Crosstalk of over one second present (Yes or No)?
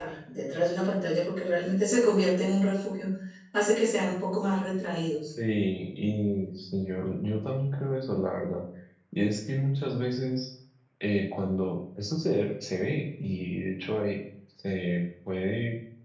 No